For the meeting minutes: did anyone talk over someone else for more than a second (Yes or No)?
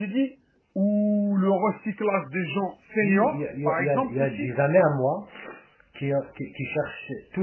Yes